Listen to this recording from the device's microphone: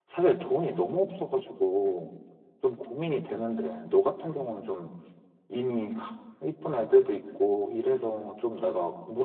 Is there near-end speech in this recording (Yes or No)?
Yes